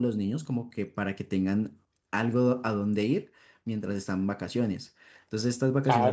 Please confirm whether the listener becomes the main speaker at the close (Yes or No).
Yes